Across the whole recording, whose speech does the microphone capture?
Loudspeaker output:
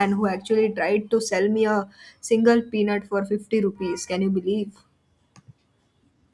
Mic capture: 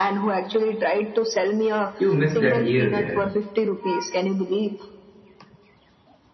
both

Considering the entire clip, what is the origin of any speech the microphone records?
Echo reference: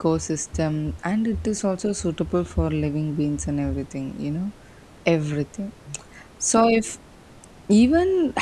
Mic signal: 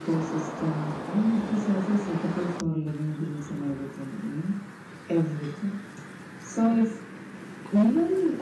echo only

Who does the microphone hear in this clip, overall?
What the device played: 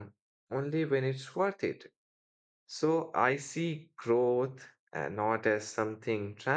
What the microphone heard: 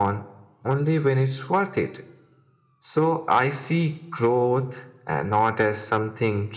echo only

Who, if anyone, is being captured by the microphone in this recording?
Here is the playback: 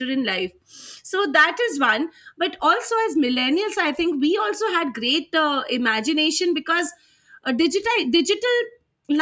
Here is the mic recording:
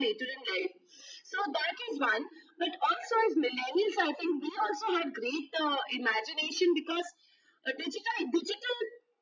echo only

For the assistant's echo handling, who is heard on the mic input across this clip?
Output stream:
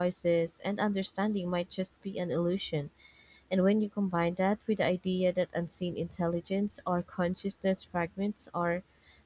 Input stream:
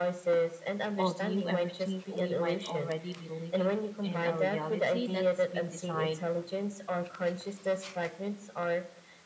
both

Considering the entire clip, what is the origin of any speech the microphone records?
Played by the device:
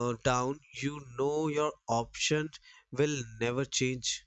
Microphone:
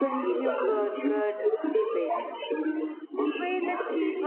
both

